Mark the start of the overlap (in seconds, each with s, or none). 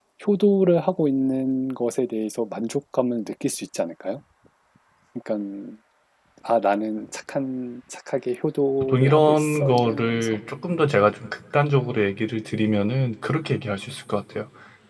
8.8 s